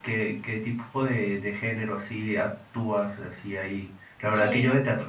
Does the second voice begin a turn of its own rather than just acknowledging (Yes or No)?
No